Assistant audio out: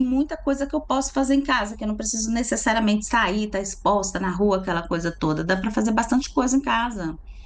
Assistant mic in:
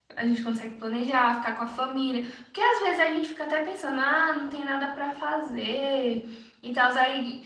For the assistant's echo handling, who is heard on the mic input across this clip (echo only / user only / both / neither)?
user only